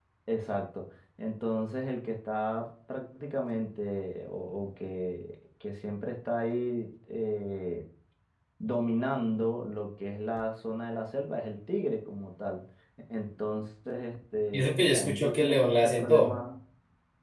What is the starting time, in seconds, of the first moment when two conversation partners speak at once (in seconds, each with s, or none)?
14.5 s